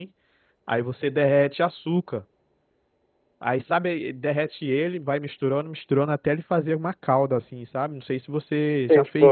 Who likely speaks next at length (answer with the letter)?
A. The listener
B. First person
A